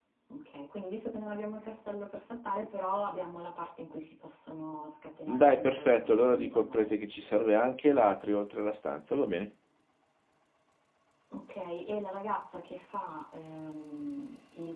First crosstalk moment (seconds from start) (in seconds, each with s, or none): 5.3 s